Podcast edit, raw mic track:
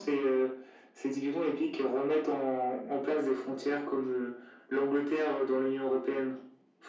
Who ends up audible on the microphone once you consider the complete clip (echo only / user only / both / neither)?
echo only